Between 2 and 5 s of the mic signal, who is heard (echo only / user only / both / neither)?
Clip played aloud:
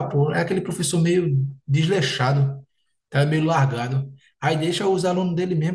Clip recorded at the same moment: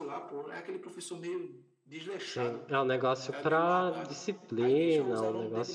both